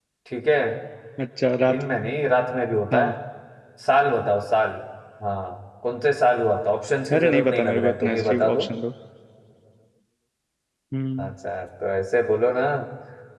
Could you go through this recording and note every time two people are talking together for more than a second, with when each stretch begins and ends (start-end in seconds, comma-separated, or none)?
7.1-8.6